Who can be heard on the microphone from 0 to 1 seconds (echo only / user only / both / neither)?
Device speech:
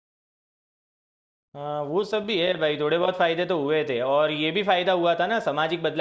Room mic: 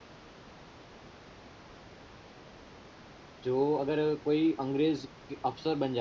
neither